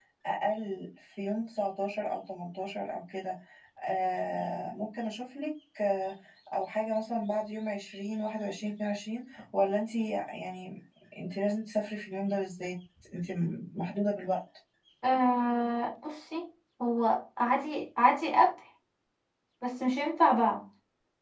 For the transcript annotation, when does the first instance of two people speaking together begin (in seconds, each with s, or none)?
none